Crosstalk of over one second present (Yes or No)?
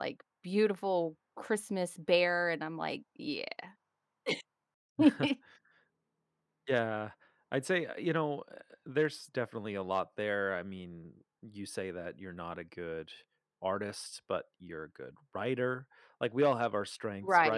No